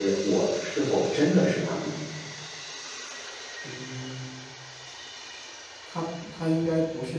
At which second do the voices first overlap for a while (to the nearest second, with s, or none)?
none